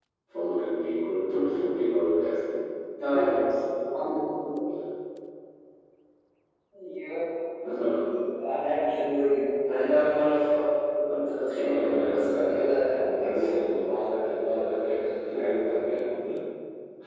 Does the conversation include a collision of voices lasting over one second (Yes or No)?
Yes